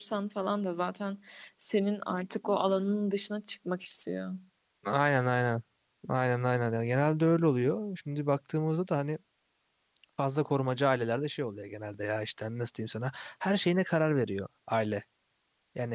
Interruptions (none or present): none